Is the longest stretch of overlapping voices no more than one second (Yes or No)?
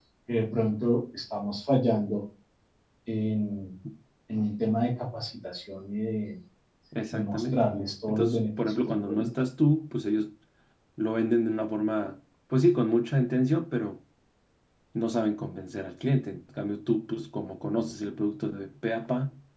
No